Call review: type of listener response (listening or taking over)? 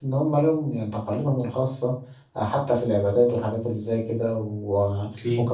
listening